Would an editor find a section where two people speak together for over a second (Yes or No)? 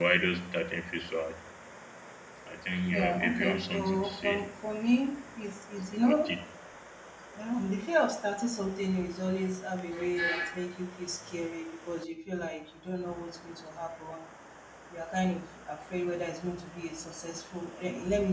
Yes